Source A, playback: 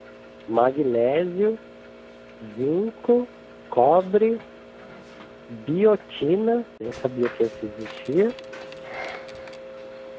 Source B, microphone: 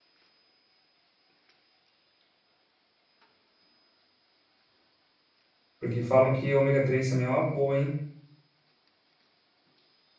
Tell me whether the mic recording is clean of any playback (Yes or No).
Yes